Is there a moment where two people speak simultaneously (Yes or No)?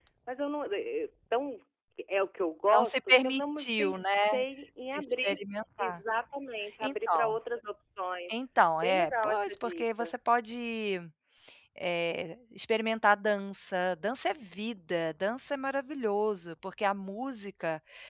Yes